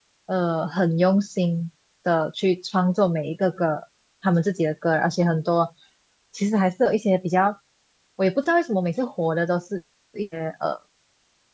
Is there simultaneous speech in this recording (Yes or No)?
No